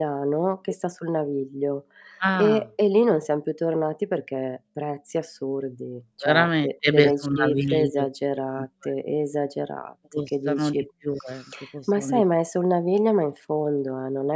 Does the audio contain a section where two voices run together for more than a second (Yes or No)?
Yes